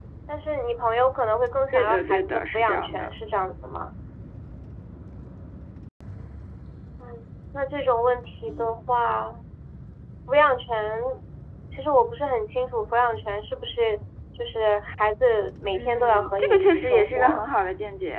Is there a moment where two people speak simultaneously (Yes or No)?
Yes